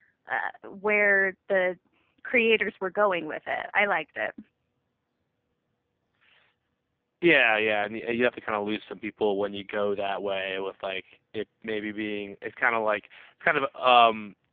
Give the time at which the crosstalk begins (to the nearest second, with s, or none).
none